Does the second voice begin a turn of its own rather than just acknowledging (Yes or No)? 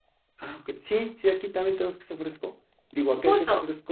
No